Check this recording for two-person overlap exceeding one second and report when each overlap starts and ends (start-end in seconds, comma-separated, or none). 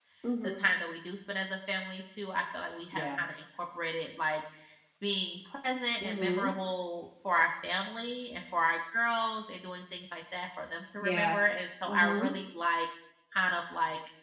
none